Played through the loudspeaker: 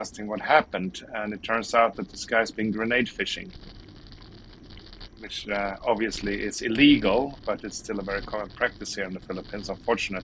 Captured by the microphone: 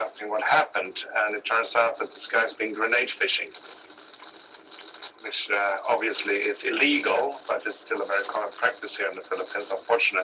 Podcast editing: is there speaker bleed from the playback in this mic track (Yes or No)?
Yes